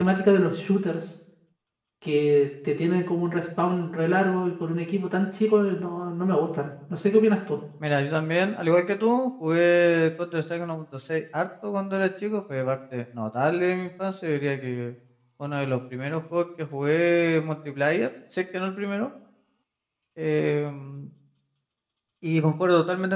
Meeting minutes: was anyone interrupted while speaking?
No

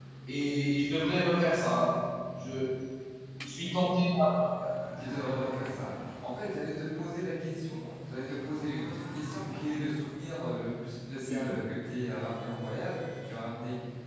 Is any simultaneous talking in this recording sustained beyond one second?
No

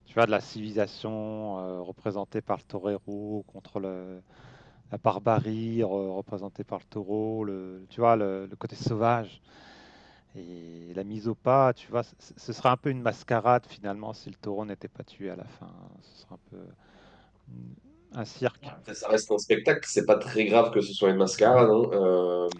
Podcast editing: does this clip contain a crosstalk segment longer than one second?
No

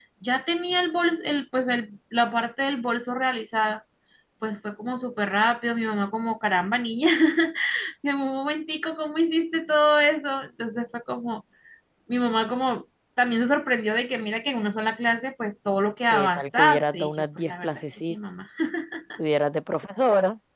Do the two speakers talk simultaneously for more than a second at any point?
Yes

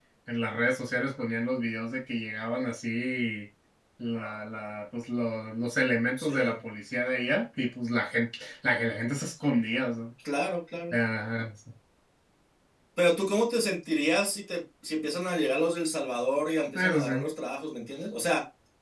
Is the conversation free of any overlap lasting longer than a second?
Yes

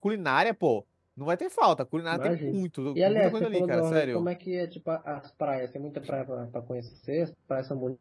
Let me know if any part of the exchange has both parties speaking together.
Yes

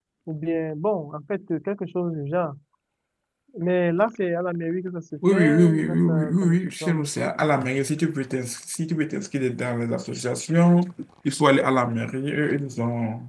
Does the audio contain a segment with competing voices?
Yes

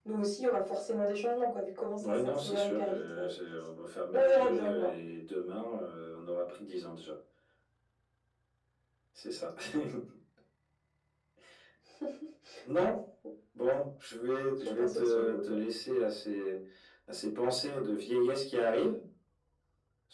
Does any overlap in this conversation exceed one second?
Yes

